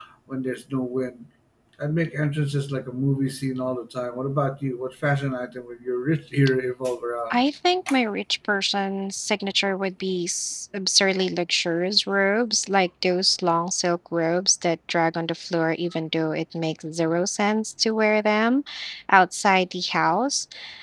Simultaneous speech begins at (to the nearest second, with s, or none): none